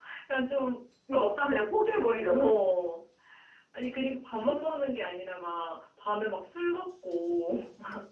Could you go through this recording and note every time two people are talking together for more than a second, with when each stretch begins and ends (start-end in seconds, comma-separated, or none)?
none